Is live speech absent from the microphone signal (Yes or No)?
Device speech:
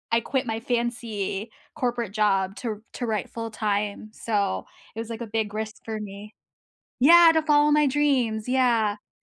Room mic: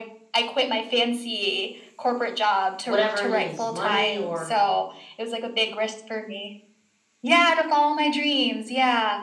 No